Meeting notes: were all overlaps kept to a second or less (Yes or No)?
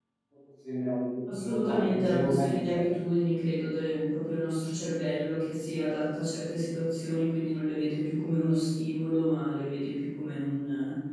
No